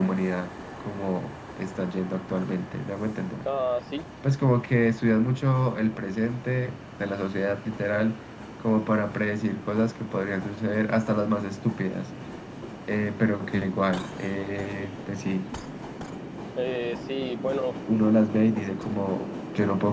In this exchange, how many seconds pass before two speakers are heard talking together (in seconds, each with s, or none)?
none